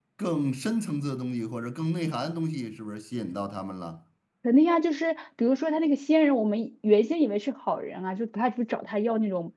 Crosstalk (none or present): none